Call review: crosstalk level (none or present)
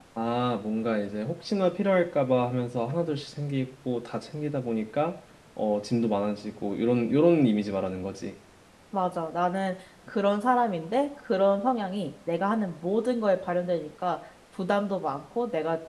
none